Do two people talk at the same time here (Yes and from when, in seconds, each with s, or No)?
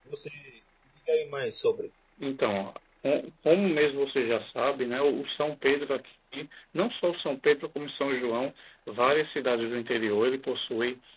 No